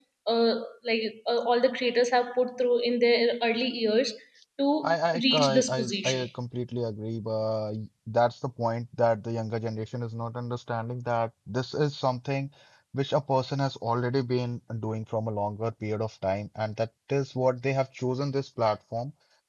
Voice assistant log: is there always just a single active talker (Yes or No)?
No